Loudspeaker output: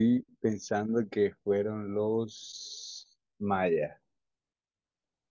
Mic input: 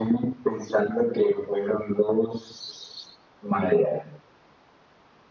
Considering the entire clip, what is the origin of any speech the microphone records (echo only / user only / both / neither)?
echo only